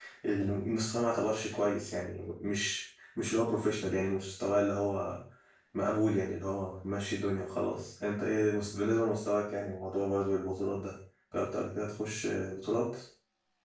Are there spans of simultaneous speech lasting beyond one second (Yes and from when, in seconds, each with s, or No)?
No